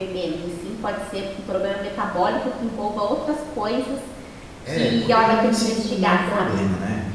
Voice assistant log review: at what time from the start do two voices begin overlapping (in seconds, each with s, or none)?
4.7 s